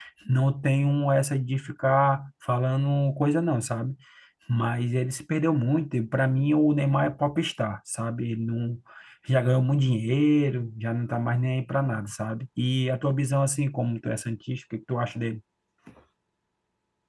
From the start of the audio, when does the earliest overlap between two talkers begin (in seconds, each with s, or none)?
none